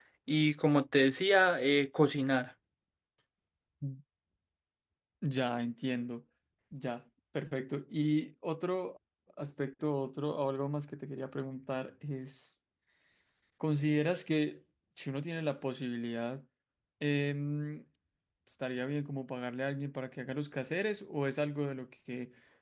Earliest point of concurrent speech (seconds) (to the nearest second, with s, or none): none